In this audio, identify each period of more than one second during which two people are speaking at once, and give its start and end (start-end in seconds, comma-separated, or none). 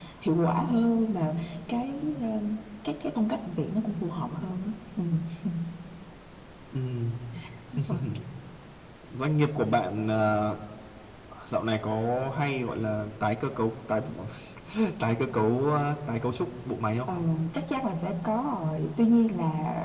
none